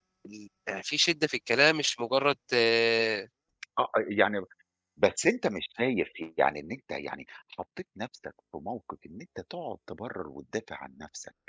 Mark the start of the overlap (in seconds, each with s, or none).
none